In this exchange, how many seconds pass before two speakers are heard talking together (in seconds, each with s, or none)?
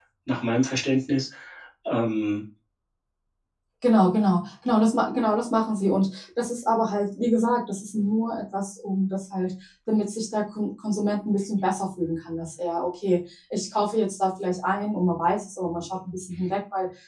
none